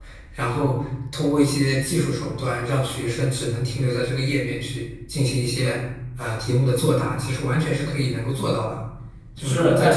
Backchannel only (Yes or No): No